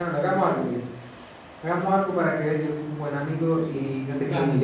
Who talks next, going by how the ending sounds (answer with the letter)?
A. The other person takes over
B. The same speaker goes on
B